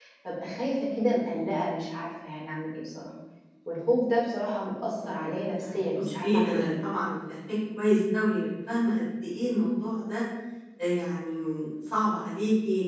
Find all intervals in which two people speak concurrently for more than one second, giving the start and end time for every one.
4.9-6.7

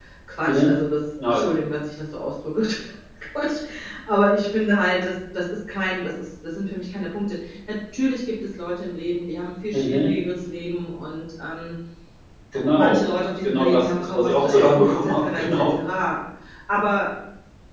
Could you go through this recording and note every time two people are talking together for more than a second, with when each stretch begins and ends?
13.4-15.8

